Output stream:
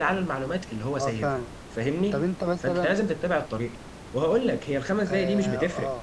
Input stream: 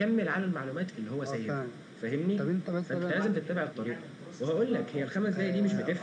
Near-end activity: present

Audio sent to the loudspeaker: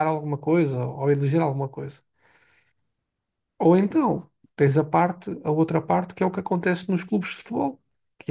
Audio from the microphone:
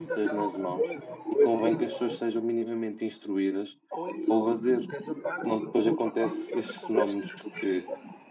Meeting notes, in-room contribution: present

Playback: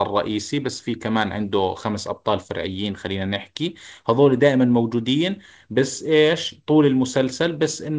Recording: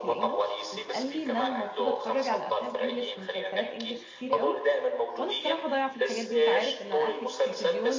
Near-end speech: present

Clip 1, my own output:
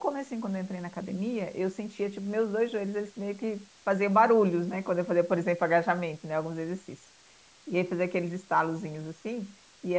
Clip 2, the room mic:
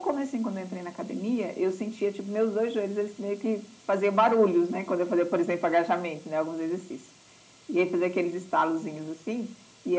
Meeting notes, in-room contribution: none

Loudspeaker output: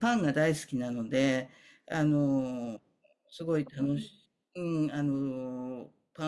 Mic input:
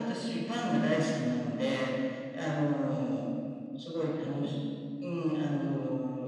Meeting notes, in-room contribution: none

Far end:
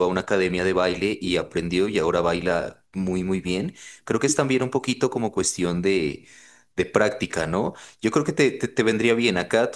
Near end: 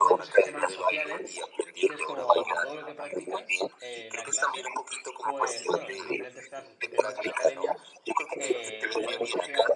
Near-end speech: present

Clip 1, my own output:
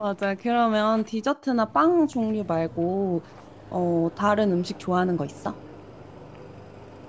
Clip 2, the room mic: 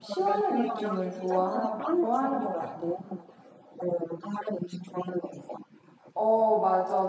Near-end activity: present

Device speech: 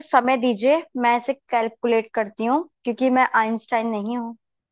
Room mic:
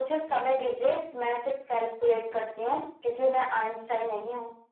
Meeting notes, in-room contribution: none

